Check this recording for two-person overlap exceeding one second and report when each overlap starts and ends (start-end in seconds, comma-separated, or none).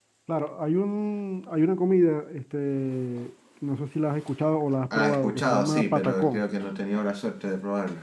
4.9-6.4